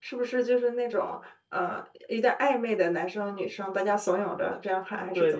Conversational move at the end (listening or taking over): taking over